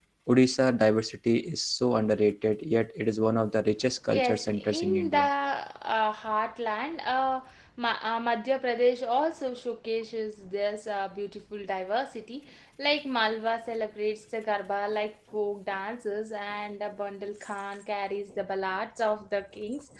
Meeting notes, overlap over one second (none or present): present